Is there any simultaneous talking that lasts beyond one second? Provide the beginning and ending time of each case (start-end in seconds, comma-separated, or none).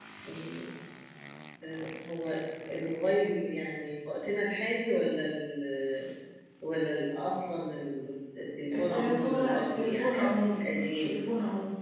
8.8-10.6